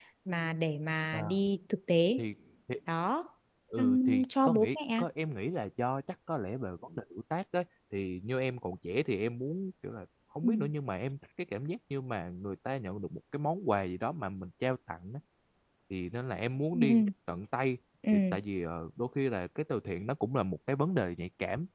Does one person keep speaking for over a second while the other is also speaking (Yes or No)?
Yes